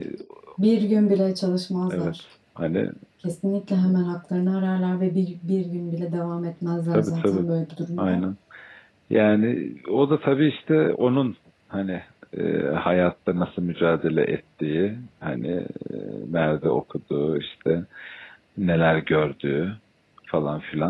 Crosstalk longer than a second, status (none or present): none